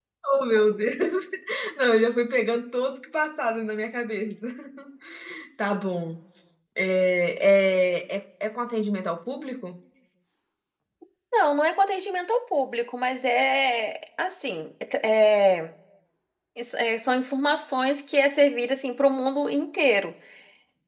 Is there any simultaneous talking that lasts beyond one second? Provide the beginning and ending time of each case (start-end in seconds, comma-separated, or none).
none